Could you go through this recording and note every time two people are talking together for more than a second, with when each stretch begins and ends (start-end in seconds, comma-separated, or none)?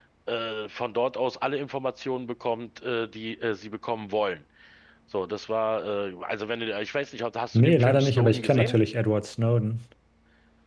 7.5-8.8